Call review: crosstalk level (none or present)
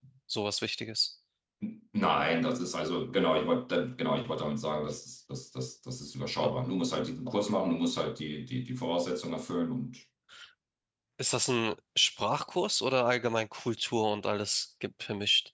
none